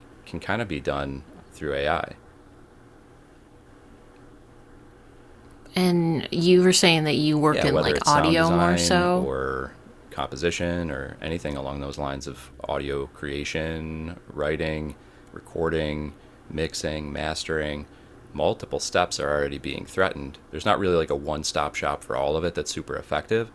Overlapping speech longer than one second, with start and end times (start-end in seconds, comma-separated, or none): 7.5-9.3